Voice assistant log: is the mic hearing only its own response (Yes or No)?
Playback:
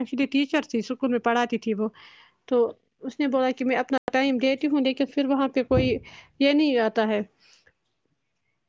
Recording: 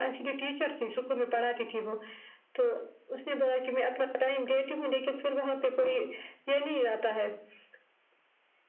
Yes